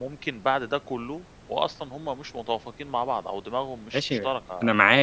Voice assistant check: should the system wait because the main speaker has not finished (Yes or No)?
No